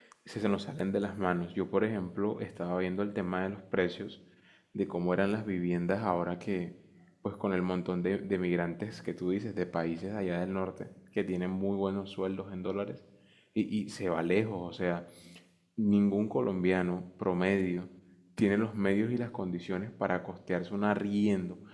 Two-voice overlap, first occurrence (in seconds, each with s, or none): none